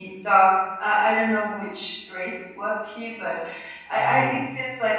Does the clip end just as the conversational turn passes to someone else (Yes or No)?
No